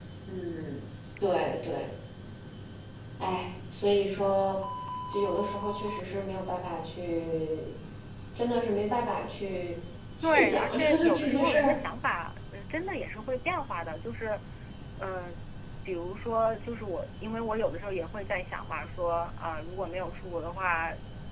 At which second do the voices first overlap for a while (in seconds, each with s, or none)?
10.2 s